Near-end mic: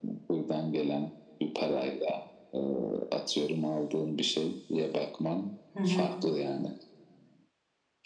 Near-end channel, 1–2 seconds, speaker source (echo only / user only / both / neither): echo only